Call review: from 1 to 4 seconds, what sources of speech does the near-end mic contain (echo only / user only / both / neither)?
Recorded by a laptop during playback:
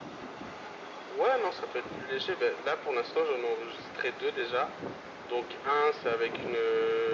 echo only